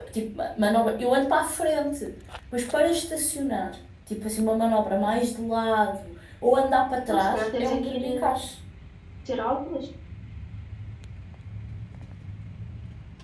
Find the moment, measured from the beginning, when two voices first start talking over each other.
7.1 s

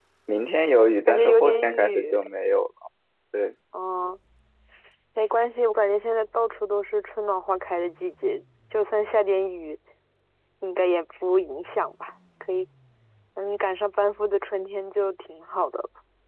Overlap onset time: 1.1 s

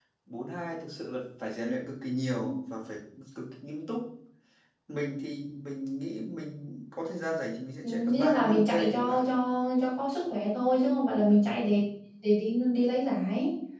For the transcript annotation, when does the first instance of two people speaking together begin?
7.8 s

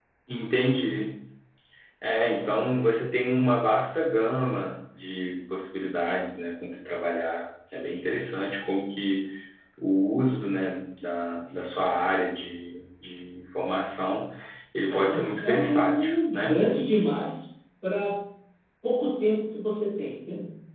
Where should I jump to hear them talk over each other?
14.9 s

